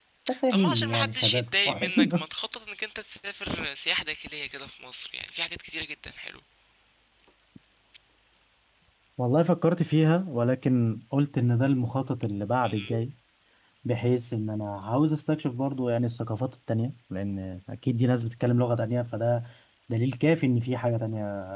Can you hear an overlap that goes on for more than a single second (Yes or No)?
Yes